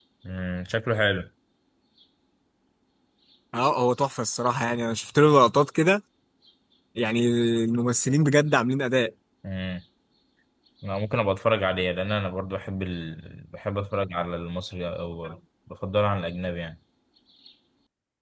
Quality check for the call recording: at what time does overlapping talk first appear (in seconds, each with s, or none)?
none